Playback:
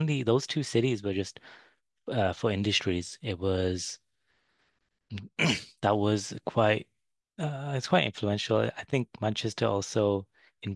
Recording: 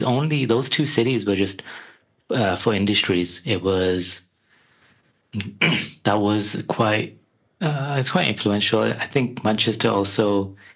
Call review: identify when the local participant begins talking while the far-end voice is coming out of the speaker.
none

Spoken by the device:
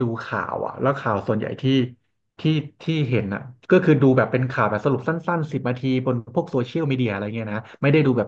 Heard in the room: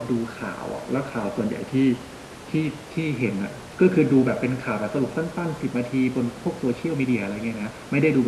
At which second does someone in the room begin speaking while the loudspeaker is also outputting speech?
none

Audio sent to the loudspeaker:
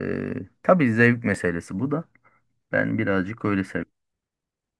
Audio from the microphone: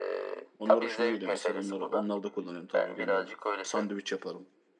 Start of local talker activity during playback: 0.6 s

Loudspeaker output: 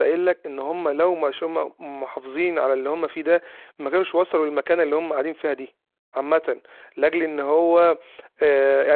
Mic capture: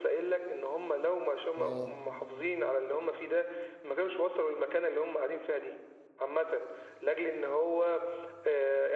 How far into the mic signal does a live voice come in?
1.6 s

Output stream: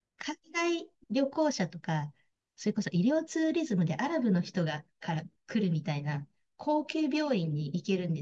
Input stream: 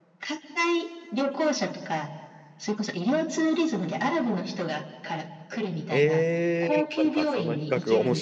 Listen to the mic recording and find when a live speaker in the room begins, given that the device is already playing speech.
5.9 s

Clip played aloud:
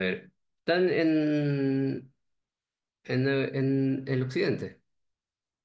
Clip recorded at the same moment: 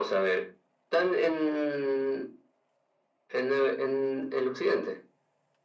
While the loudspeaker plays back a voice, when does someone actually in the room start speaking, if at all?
none

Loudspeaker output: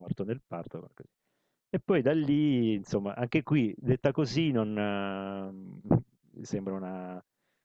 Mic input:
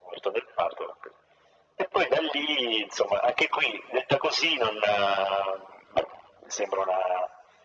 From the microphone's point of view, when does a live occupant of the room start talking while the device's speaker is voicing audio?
none

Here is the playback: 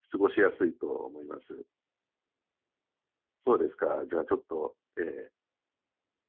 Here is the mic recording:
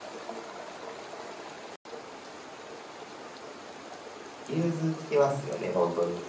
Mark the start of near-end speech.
4.4 s

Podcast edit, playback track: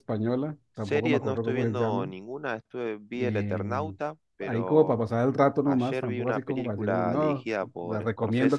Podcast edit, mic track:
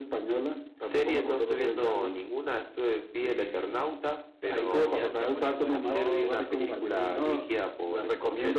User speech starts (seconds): 4.4 s

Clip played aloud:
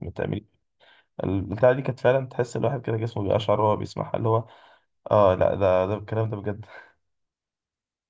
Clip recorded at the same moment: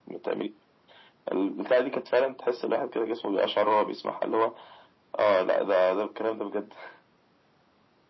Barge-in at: none

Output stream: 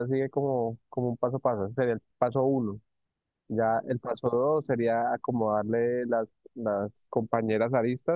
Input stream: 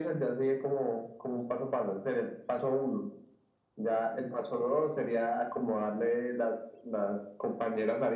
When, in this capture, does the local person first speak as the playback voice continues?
none

